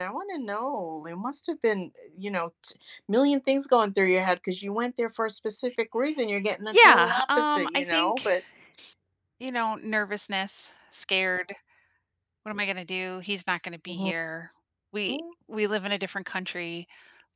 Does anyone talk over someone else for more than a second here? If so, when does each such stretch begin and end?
6.7-8.3

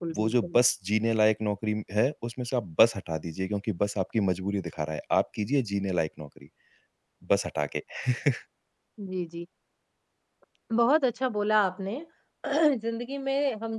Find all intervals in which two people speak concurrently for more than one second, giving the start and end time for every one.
none

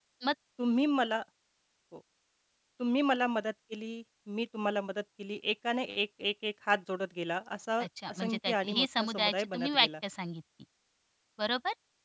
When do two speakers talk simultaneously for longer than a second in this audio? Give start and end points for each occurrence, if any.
7.8-9.9

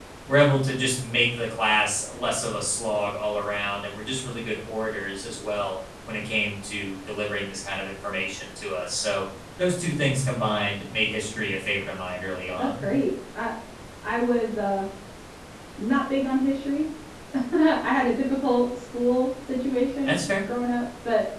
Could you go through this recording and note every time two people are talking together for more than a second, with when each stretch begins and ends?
none

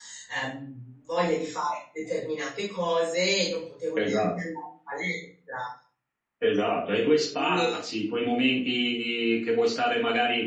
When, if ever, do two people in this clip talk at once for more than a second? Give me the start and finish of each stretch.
none

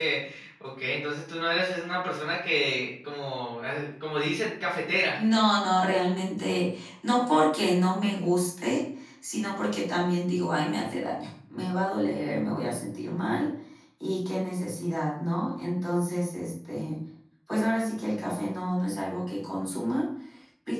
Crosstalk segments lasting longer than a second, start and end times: none

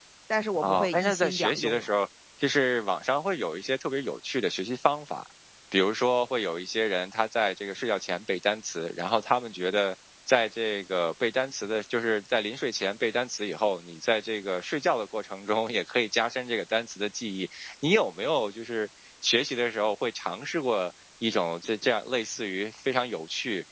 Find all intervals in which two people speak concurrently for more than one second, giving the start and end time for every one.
0.6-1.9

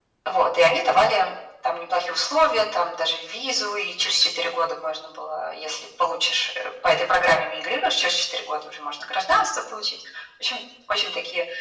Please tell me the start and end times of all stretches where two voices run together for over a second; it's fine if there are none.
none

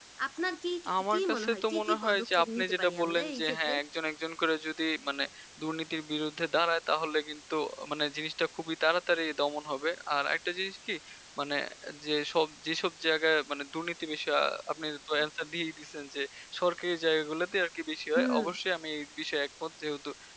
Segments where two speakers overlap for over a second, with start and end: 1.1-3.7

